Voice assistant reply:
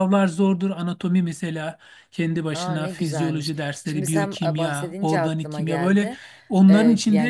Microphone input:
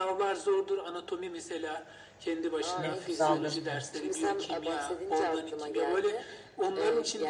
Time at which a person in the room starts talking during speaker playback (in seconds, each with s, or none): 2.8 s